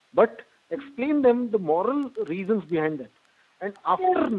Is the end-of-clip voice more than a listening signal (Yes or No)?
No